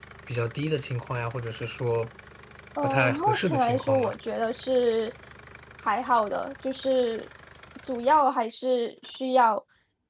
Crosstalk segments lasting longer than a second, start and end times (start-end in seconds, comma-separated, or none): 2.8-4.1